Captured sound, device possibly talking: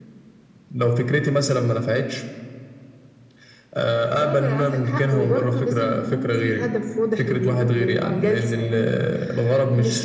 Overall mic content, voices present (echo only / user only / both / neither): both